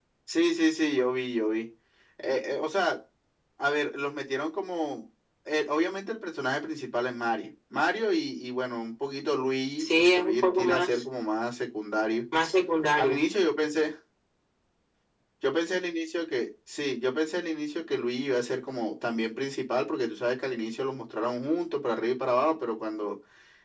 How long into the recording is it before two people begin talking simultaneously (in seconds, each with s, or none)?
9.8 s